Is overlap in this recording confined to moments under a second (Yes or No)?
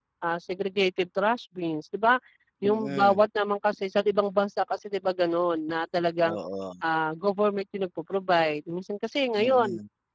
Yes